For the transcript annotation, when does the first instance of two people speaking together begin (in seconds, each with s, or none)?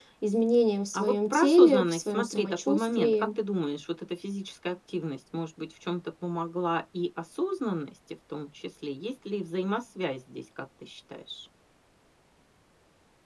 0.9 s